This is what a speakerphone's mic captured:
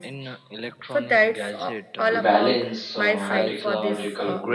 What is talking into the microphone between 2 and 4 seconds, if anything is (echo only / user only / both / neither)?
both